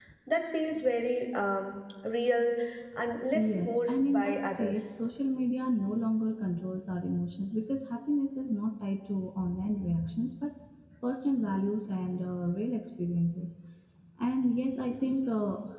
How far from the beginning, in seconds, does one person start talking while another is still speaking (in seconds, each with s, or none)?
3.3 s